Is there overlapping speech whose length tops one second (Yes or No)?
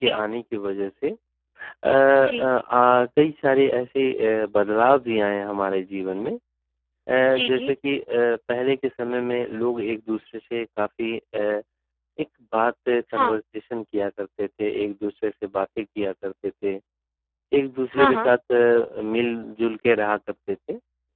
No